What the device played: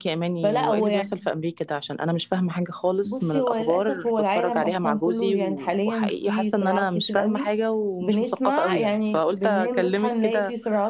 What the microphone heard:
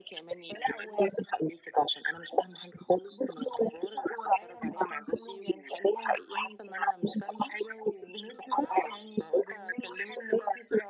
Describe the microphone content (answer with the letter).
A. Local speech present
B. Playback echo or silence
B